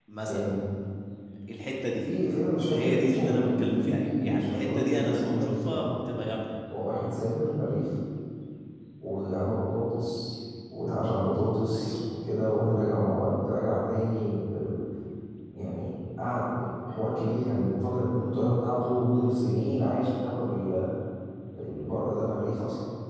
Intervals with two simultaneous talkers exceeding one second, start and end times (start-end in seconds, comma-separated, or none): 2.7-5.9